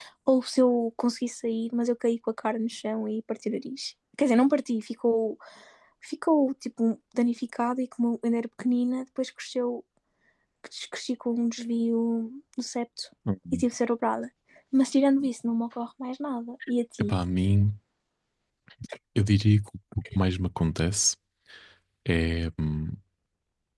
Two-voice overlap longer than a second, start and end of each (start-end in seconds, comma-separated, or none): none